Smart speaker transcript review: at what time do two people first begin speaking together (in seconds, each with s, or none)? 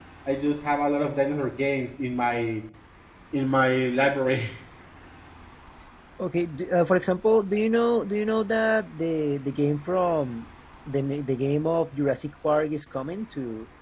none